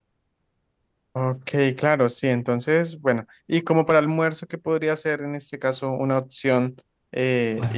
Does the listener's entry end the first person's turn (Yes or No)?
No